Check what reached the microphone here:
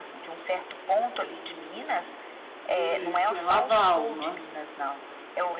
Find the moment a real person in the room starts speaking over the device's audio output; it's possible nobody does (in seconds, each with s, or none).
2.6 s